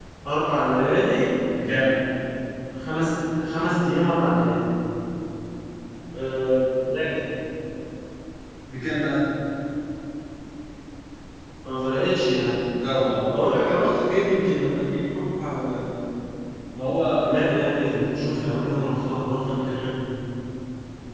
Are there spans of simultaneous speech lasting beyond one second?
No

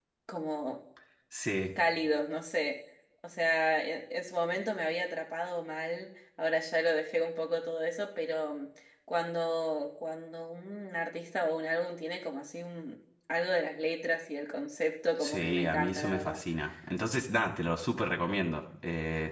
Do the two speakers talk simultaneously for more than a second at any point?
Yes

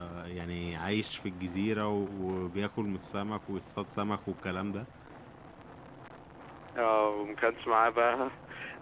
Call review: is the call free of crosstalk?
Yes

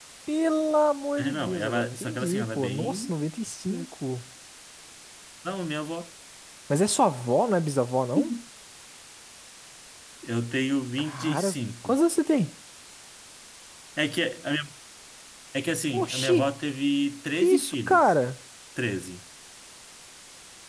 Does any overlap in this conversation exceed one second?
Yes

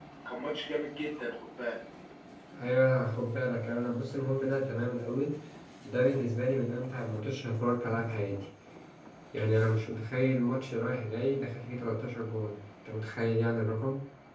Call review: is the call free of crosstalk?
Yes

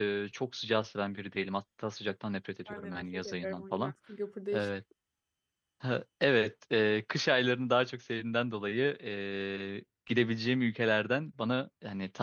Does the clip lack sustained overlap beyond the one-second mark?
No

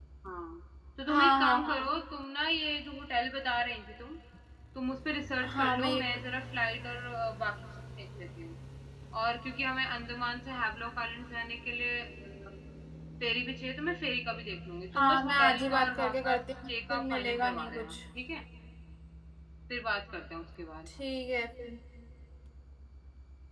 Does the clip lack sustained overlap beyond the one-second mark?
No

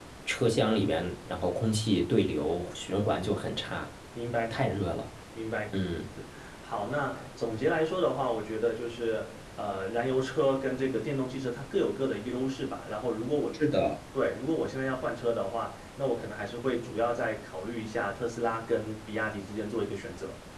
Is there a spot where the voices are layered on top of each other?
No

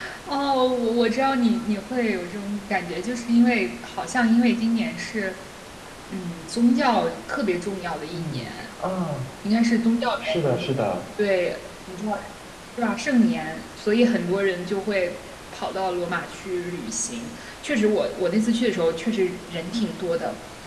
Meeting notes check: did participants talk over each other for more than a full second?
No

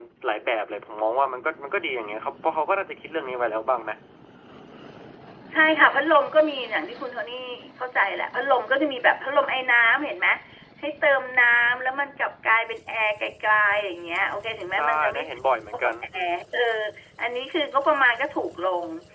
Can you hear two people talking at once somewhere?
Yes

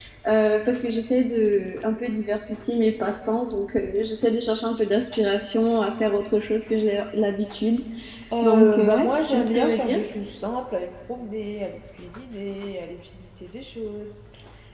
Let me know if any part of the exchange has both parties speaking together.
Yes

